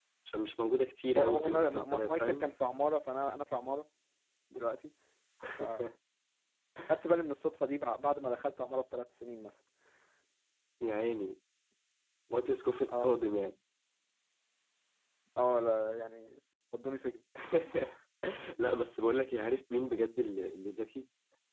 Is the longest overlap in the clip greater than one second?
Yes, from 1.2 s

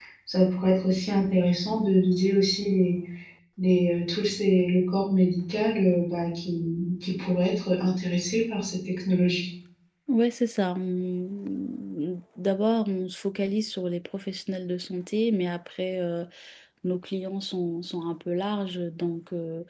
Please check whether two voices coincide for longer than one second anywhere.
No

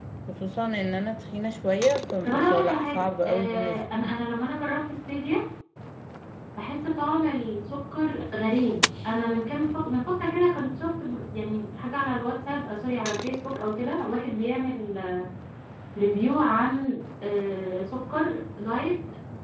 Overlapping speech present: Yes, from 2.2 s

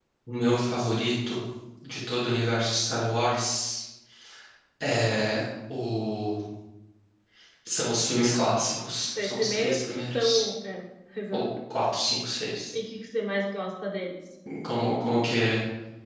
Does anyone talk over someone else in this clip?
Yes, from 9.2 s

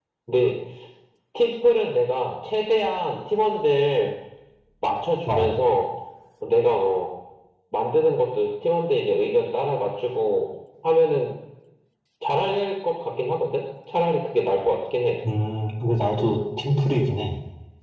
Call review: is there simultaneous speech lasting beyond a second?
No

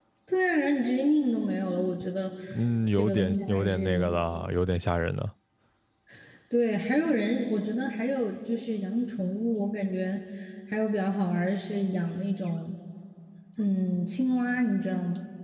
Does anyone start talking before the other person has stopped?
Yes, from 3.0 s

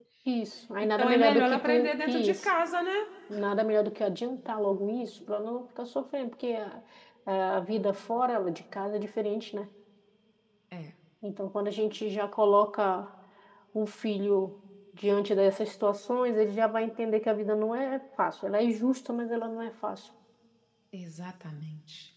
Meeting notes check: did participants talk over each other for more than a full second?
Yes, from 1.0 s

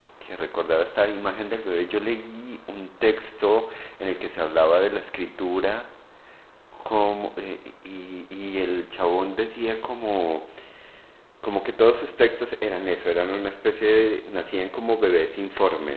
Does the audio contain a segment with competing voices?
No

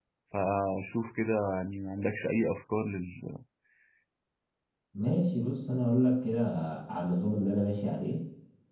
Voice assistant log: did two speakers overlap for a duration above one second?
No

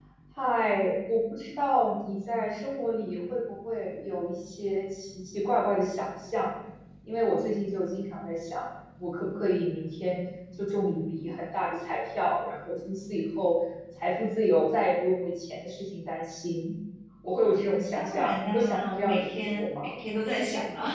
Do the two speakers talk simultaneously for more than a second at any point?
Yes, from 17.9 s

